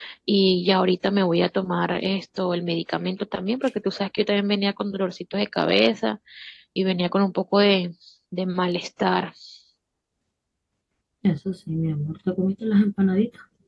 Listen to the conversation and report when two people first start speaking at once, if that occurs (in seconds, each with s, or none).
none